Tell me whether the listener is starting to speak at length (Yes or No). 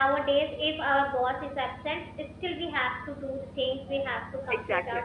No